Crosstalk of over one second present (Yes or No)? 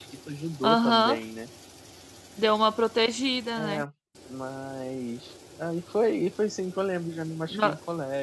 No